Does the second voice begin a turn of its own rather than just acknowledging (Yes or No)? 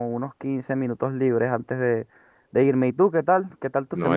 Yes